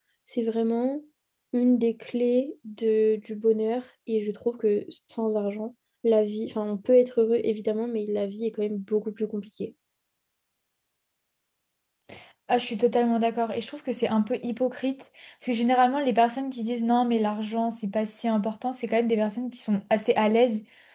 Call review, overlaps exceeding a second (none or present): none